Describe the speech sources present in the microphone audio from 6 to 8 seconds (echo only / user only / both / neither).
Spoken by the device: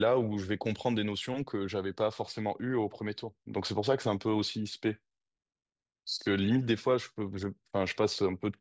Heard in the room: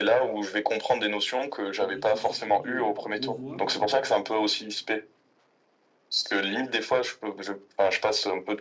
echo only